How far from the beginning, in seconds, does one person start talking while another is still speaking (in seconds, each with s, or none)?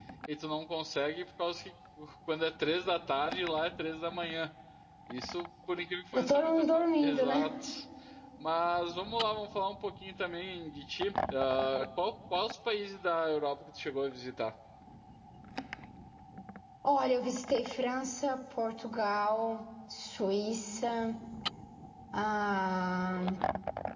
6.1 s